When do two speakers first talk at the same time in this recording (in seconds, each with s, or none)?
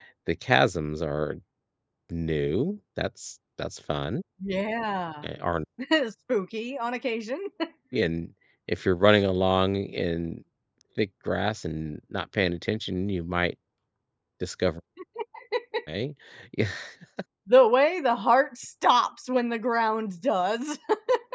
none